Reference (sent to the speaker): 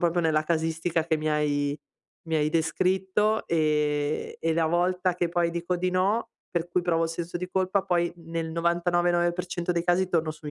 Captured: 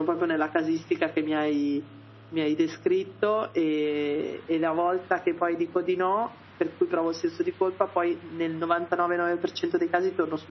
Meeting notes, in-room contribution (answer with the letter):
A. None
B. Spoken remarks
A